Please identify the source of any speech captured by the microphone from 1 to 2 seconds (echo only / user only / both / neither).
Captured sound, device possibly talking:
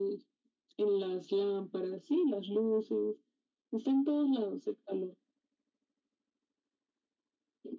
echo only